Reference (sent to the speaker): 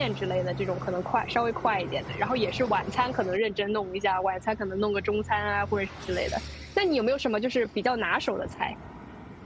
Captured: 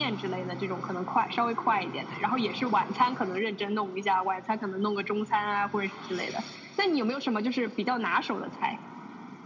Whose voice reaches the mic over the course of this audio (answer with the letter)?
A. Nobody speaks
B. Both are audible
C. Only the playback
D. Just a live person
C